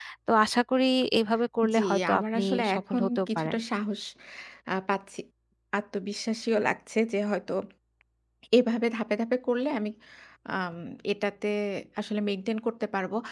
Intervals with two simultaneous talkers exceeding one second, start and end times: 1.8-3.6

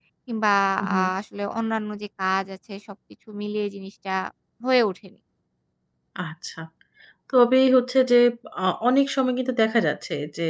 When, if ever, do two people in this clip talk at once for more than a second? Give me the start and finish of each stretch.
none

